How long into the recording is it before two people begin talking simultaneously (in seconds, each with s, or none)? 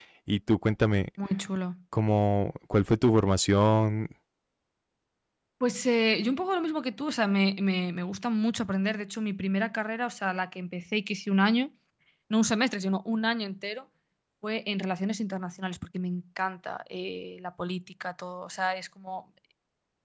none